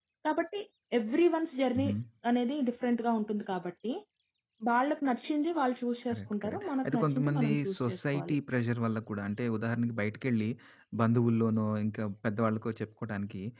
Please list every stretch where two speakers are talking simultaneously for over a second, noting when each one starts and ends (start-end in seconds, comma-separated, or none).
6.1-8.3